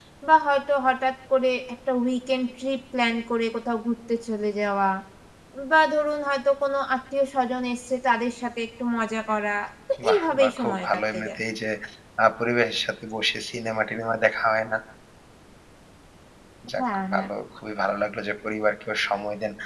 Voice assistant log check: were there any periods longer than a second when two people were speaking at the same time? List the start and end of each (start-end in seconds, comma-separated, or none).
10.0-11.4